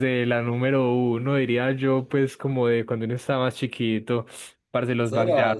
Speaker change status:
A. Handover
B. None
A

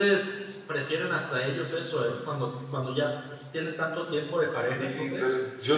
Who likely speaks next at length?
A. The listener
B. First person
A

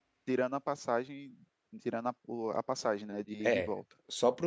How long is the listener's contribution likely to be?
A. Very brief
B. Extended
B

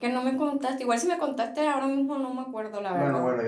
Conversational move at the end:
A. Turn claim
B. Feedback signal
A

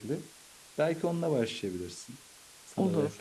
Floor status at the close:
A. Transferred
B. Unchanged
A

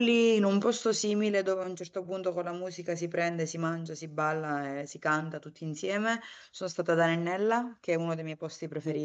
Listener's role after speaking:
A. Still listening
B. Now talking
A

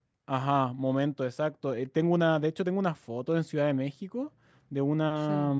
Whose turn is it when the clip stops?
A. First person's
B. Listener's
A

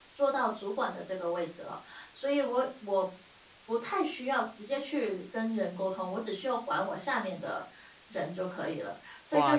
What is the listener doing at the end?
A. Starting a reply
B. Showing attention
A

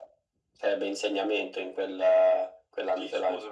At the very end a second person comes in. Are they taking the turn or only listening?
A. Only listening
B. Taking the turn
B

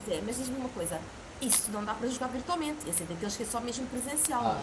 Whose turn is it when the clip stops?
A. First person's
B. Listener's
B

